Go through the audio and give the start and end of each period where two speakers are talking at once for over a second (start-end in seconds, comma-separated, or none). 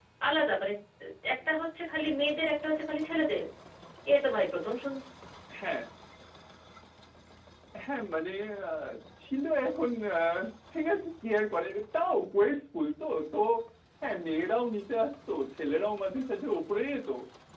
none